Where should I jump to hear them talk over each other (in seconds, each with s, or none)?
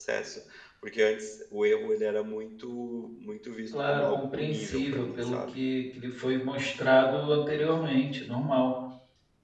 3.8 s